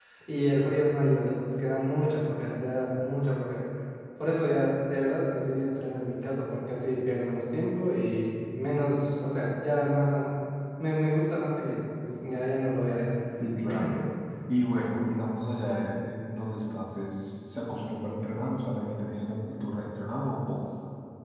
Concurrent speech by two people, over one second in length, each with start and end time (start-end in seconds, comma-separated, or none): none